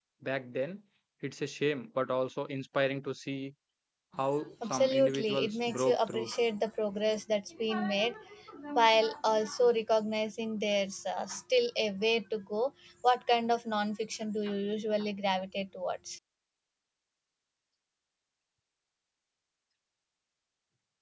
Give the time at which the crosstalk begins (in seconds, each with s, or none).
4.6 s